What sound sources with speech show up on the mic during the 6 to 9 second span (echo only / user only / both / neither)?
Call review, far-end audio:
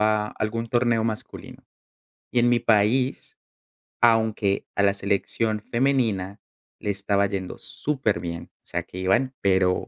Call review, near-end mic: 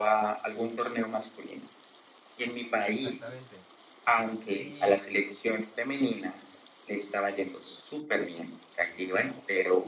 echo only